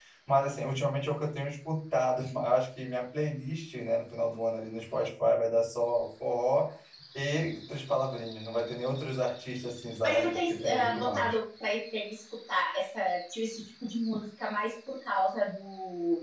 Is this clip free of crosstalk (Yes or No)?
No